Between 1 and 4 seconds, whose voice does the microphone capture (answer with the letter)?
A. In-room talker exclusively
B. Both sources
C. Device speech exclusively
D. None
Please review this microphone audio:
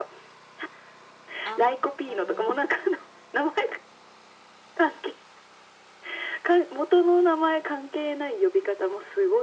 B